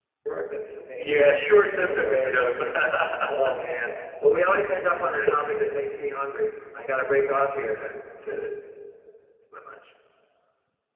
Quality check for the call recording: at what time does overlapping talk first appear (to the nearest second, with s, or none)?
1 s